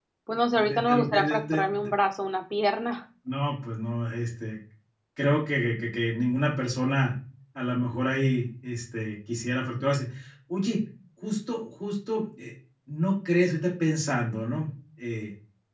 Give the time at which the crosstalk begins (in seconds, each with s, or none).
0.5 s